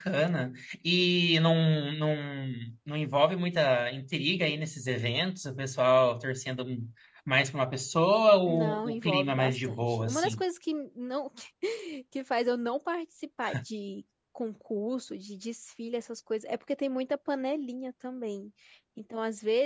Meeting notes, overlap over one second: present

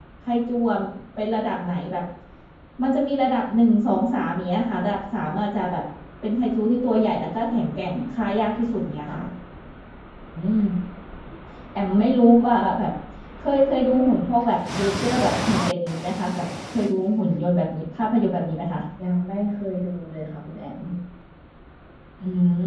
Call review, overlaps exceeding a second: none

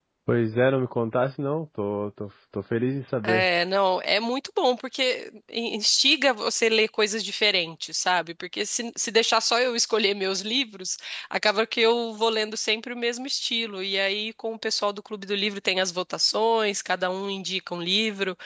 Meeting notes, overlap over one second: none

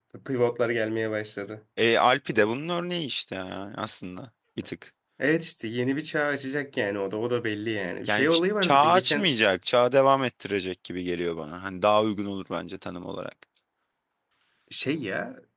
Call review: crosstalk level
present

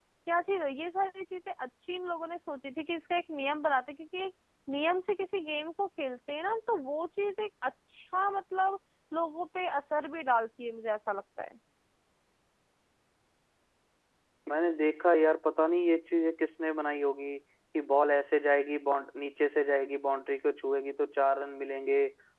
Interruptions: none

